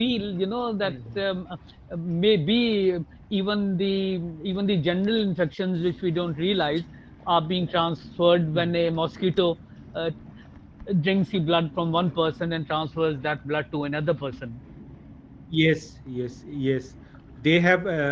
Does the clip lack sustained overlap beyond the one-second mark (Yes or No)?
Yes